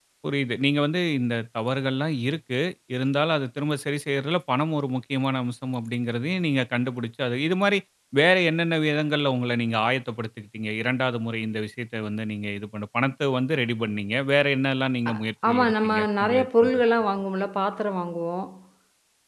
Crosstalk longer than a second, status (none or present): present